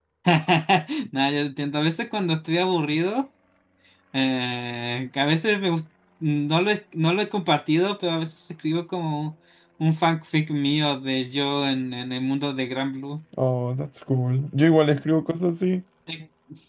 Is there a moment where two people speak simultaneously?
No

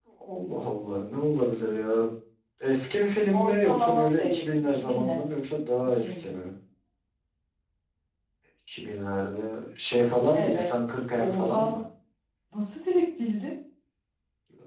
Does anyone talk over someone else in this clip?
Yes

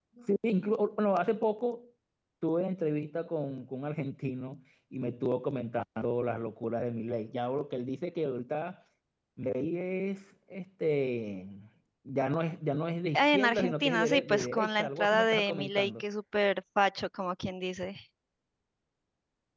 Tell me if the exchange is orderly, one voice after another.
No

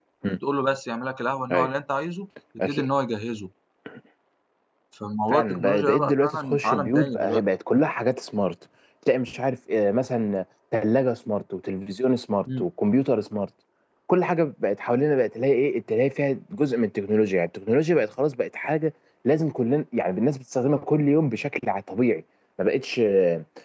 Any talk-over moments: Yes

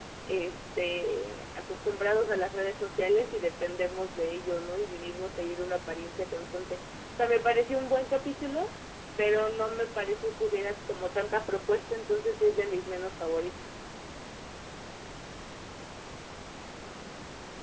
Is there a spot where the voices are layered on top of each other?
No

